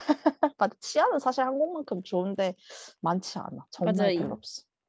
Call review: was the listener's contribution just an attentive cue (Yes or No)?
No